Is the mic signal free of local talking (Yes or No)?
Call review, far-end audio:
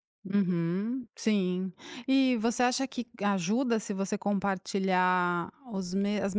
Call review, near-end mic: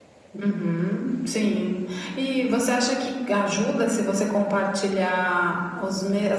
Yes